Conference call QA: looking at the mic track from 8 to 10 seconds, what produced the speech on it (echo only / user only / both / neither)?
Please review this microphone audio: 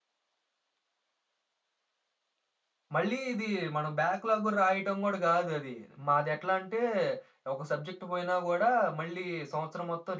user only